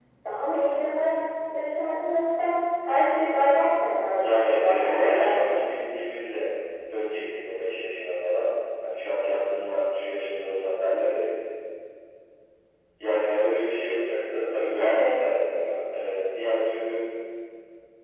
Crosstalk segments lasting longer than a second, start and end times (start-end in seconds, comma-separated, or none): 4.2-5.6